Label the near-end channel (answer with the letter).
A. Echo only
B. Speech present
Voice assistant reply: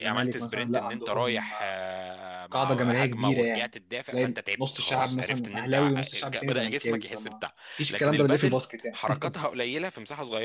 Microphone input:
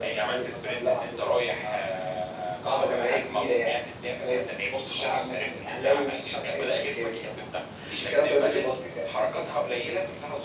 A